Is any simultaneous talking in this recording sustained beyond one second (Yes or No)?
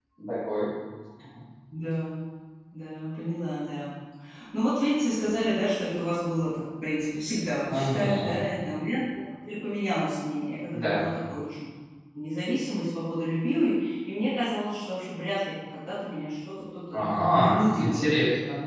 Yes